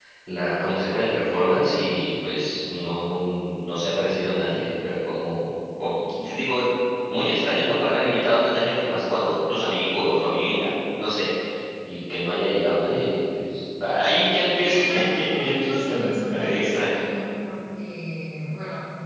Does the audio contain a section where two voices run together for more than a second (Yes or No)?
Yes